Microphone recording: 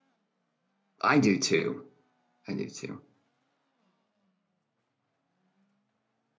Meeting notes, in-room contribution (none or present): present